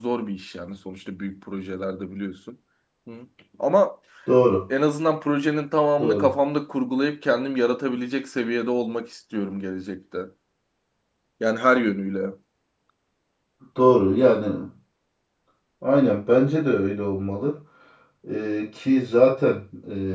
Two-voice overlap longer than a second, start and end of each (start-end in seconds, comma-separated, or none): none